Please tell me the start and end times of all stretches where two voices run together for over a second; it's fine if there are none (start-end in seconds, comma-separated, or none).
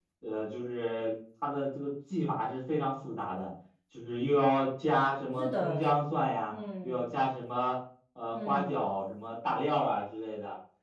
none